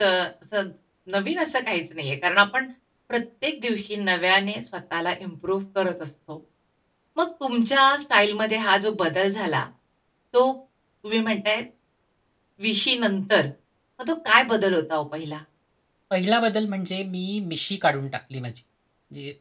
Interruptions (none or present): none